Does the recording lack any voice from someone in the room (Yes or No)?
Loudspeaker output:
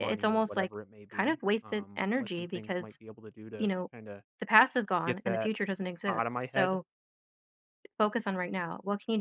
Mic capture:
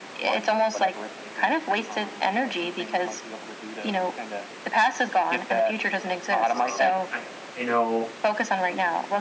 No